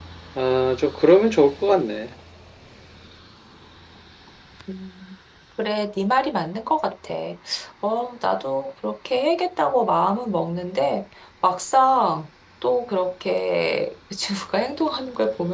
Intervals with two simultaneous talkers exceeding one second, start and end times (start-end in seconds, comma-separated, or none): none